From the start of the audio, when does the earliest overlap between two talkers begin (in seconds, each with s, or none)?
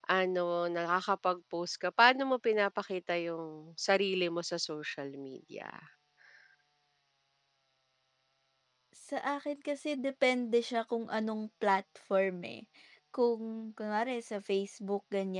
none